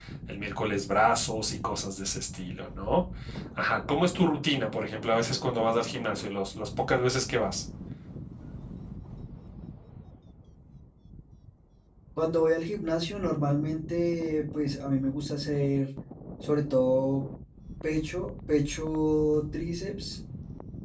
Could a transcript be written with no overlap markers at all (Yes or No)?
Yes